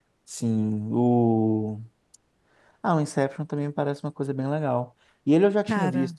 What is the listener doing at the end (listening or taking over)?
listening